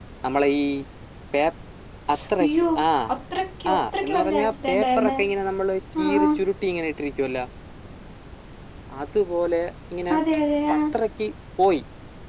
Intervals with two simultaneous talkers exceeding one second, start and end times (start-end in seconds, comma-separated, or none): 3.7-5.1